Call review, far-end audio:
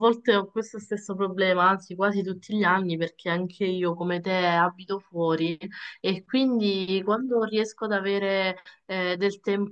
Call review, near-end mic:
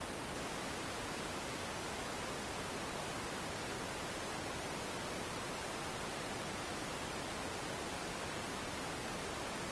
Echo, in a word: none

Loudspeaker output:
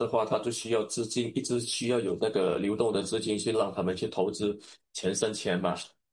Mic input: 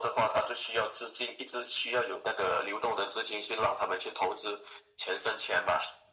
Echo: present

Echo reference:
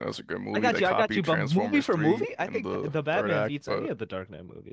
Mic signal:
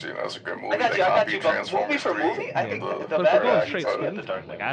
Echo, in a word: present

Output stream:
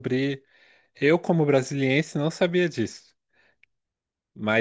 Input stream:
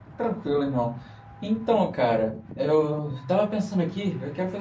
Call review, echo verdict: none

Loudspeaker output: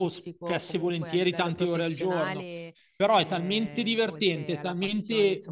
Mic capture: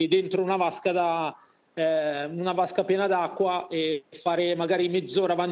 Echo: none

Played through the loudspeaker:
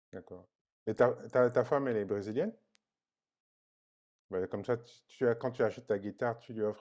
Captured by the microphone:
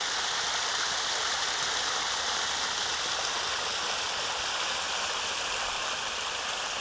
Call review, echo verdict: none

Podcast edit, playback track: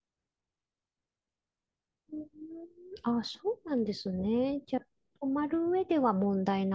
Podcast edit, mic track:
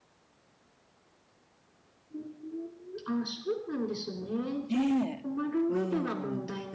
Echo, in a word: present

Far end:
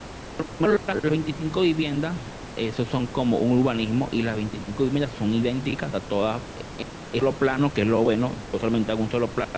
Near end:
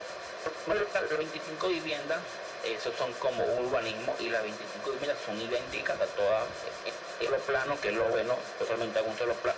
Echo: present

